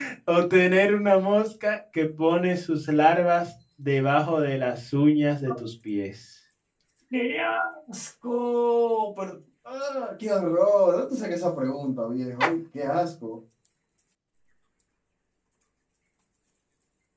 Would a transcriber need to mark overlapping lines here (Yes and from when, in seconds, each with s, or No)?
No